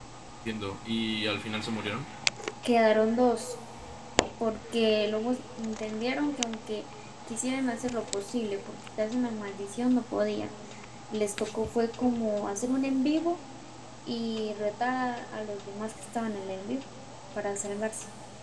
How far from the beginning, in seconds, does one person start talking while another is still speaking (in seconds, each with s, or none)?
none